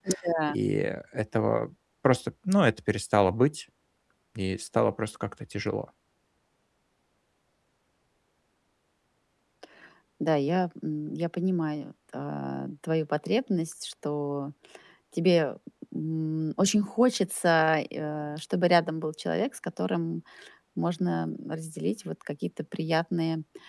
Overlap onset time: none

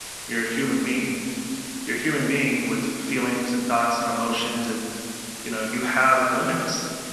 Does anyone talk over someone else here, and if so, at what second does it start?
none

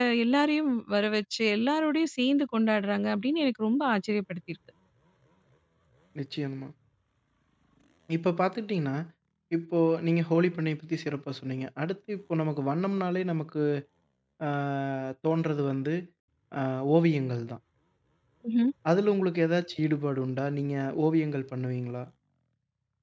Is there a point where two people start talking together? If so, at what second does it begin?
none

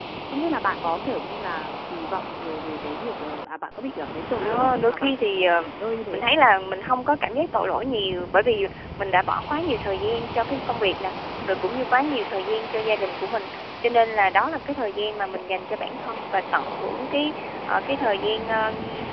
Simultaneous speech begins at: 4 s

